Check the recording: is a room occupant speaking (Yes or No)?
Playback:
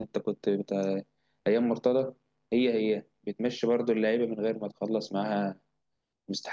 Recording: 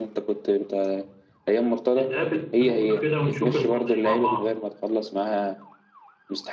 Yes